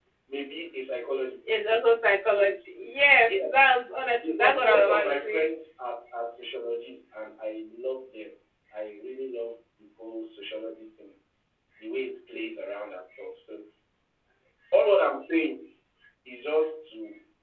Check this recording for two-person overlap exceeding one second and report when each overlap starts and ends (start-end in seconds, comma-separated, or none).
4.2-5.5